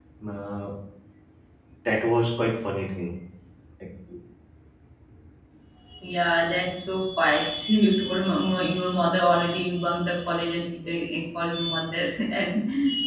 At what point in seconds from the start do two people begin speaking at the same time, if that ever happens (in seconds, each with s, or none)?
none